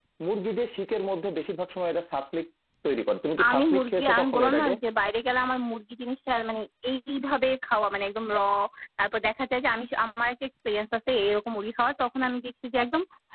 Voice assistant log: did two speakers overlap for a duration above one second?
Yes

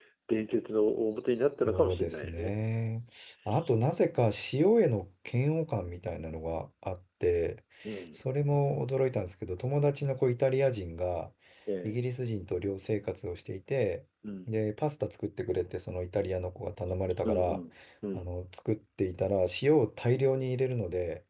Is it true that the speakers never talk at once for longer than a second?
No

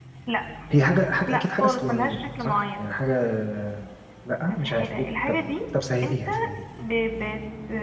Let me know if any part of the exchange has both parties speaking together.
Yes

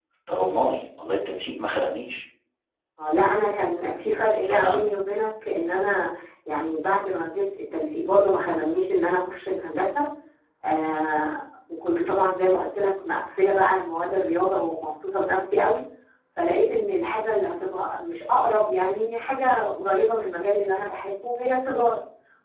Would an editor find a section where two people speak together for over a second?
No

